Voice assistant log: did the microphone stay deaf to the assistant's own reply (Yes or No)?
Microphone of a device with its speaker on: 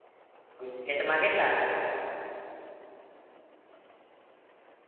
Yes